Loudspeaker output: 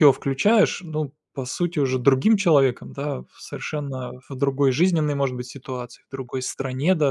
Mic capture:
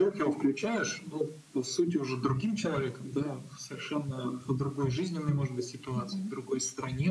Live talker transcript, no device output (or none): Мгм.